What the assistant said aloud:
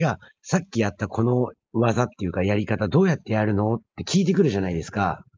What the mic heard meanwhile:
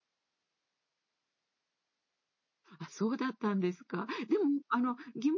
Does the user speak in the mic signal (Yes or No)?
Yes